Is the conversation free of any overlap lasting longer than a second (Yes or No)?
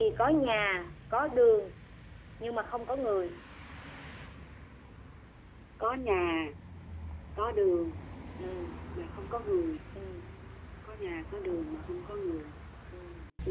Yes